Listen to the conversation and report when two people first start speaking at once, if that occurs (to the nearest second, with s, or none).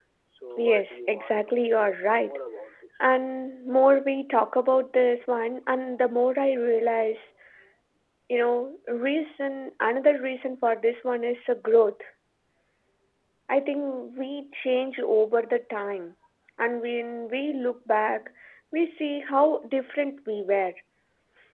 1 s